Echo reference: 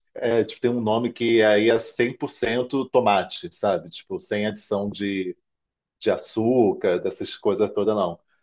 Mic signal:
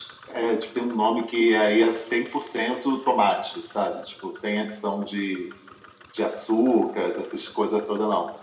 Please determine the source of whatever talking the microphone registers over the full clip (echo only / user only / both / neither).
echo only